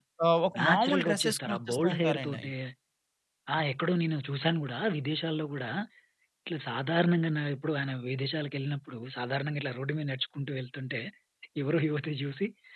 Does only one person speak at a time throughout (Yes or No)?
No